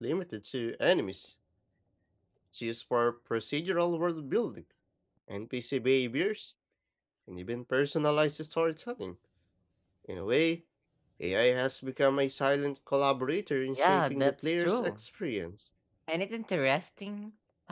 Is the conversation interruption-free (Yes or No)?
No